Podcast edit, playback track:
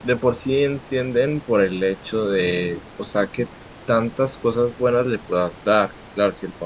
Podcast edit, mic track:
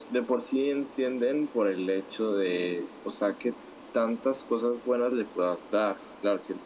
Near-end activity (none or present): none